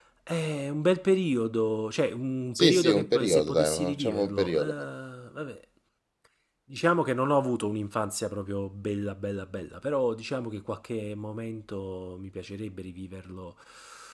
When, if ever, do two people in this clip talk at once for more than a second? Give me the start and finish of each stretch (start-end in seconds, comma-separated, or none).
2.6-4.7